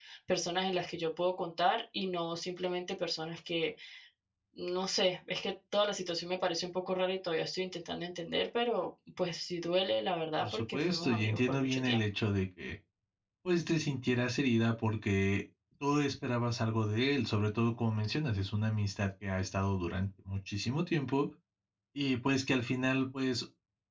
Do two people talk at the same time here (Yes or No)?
Yes